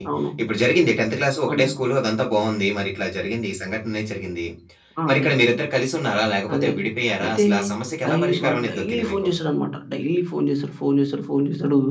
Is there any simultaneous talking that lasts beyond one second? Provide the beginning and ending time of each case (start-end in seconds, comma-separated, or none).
8.1-9.3